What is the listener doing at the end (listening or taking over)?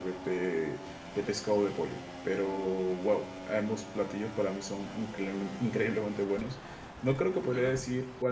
listening